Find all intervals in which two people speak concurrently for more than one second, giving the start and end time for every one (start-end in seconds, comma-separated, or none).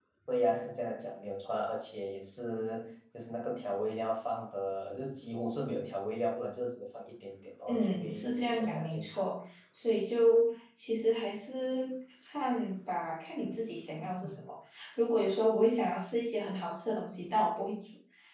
7.7-9.2